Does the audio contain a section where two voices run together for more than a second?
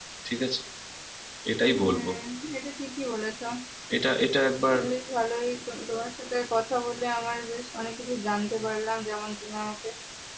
No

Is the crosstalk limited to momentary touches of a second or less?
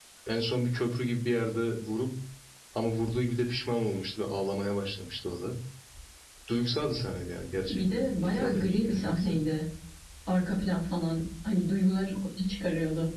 No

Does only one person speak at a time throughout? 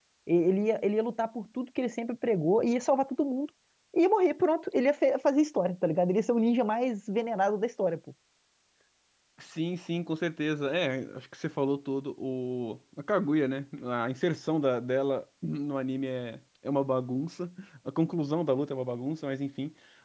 Yes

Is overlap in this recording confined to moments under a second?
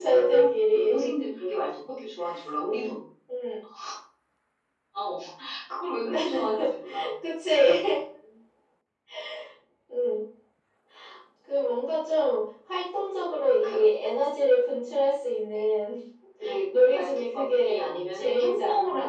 No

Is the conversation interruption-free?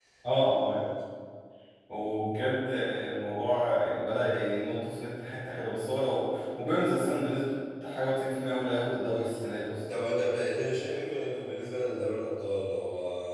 Yes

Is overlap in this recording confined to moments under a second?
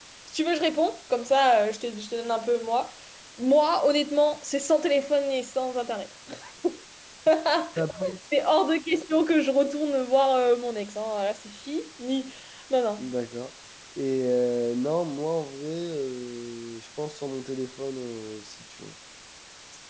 Yes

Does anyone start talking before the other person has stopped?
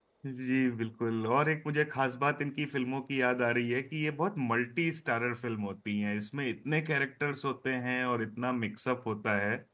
No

